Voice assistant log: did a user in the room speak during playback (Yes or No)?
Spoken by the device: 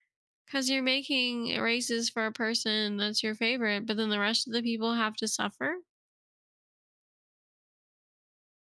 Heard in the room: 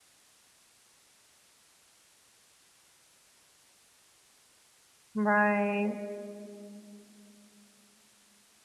Yes